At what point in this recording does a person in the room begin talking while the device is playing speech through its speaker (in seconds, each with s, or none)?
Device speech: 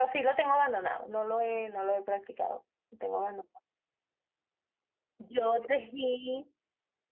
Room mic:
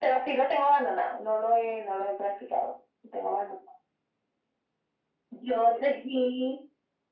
none